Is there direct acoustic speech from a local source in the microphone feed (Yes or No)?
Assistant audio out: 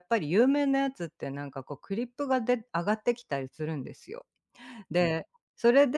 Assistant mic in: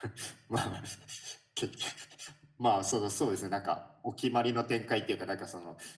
Yes